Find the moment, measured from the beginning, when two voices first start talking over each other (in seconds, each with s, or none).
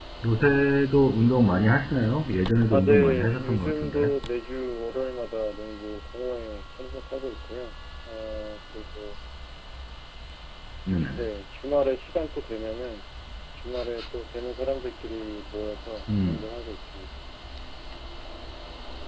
2.7 s